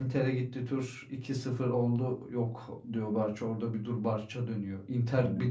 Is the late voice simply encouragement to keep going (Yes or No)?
Yes